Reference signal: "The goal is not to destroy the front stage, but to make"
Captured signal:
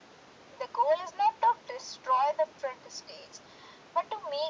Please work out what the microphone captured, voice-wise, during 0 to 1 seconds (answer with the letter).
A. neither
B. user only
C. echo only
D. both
C